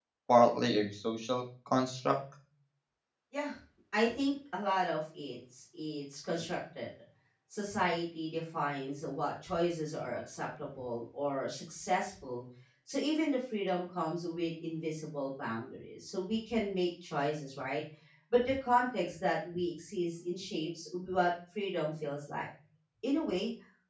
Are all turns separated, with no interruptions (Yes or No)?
Yes